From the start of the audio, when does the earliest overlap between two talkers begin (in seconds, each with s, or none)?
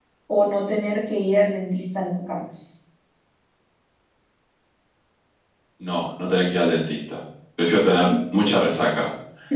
none